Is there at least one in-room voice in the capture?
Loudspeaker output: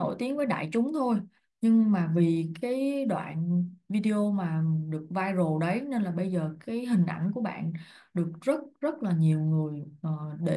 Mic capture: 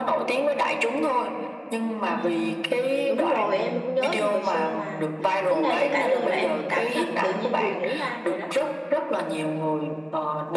Yes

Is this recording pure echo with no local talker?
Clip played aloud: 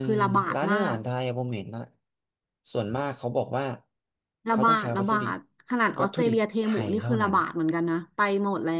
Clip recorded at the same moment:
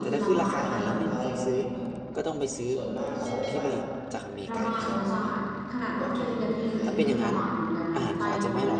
No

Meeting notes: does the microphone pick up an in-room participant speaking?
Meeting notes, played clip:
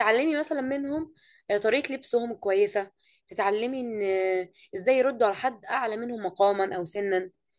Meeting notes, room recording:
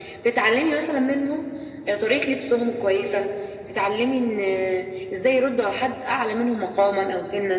No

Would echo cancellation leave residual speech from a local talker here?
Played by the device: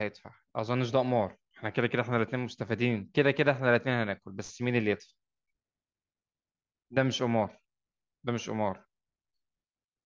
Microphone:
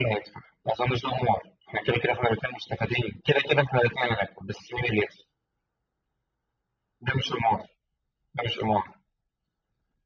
No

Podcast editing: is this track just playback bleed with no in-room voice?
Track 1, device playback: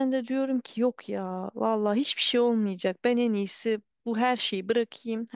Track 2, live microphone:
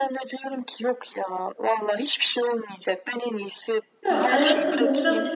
No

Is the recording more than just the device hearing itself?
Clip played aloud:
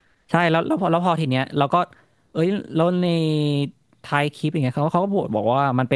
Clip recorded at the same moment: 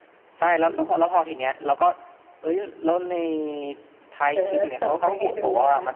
Yes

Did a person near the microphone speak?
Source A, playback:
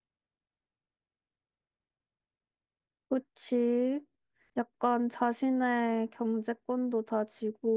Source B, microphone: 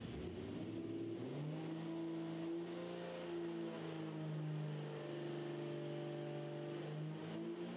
No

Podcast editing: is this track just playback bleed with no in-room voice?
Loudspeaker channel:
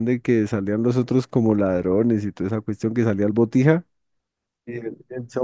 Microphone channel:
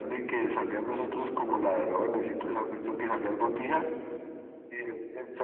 Yes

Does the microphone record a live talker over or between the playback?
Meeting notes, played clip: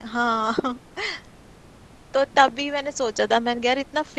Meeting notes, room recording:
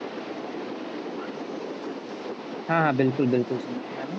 Yes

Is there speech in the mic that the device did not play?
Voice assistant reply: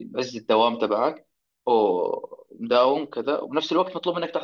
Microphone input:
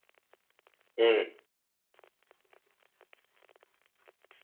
Yes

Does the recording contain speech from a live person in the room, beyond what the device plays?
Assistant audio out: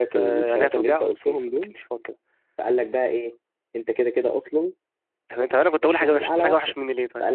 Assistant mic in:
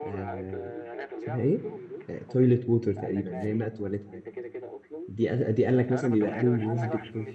Yes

